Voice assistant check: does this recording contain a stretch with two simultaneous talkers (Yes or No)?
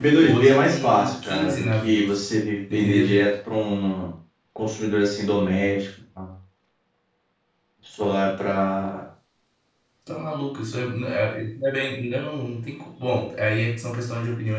Yes